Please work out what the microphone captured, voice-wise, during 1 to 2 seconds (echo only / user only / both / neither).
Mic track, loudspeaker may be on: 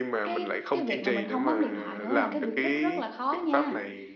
both